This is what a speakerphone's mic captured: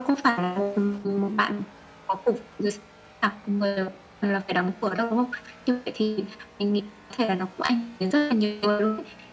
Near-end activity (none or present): none